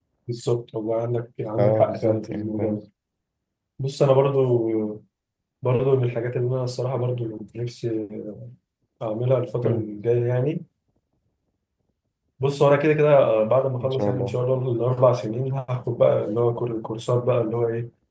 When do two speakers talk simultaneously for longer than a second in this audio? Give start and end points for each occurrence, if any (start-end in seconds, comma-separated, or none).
1.6-2.8